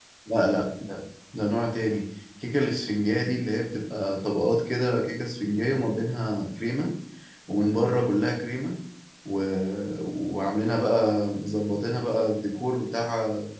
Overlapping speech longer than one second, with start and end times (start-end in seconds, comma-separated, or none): none